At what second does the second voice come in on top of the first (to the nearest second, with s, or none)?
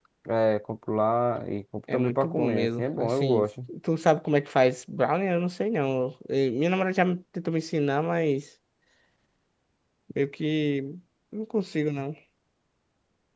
2 s